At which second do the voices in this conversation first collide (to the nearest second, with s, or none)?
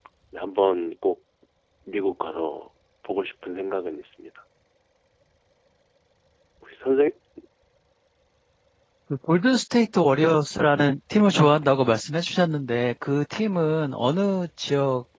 none